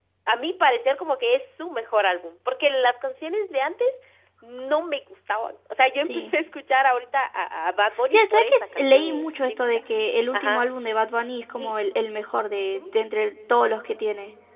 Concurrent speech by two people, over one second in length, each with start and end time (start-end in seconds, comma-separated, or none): 8.1-9.6